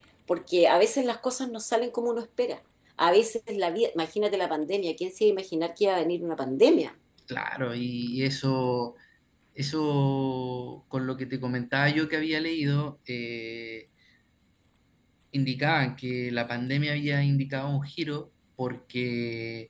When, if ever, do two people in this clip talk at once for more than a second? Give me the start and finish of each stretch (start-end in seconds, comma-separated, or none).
none